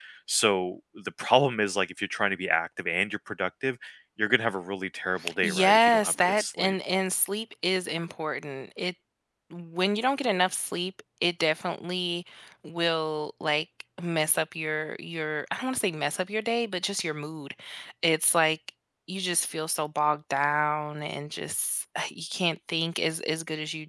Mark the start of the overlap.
5.2 s

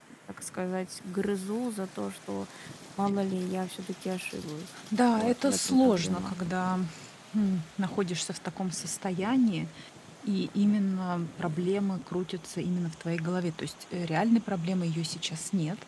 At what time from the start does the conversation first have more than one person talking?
5.2 s

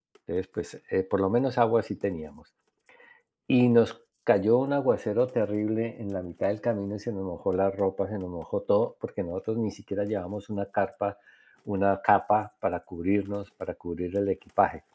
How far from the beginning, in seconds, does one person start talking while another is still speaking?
none

